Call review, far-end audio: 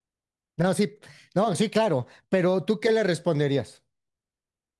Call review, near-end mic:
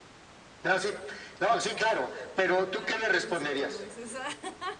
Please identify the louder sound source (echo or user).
echo